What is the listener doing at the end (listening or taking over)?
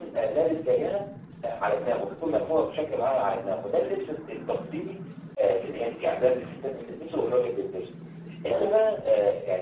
listening